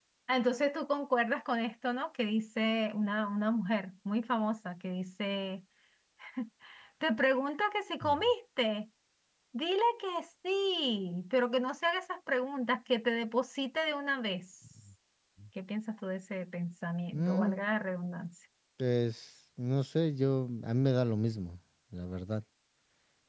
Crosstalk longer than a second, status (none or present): none